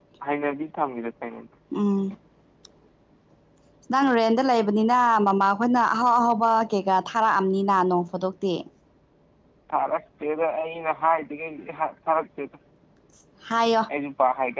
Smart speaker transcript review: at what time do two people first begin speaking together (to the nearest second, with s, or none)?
none